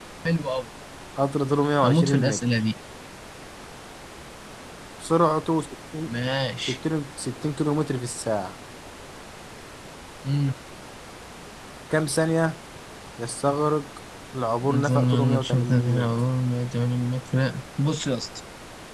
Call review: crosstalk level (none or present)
present